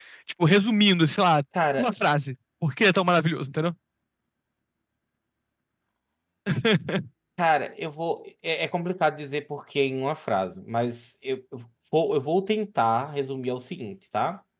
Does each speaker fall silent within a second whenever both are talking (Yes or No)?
Yes